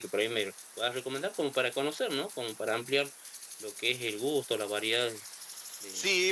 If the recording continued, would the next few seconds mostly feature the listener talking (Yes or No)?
Yes